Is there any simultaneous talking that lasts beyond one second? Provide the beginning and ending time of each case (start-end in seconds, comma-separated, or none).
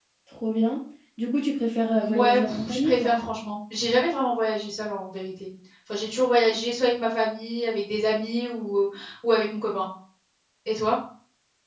2.0-3.2